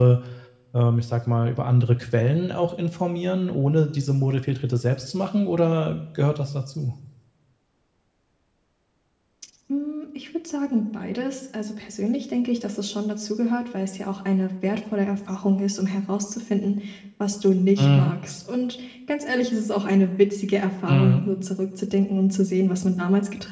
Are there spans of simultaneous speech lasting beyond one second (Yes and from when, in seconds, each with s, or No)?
No